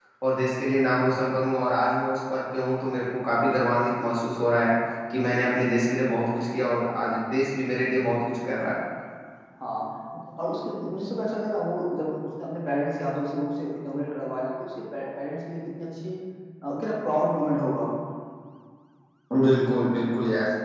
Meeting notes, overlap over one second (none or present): none